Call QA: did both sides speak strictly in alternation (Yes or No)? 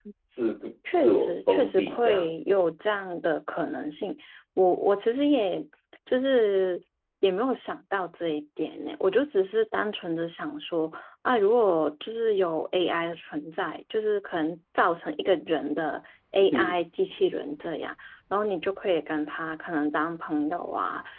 No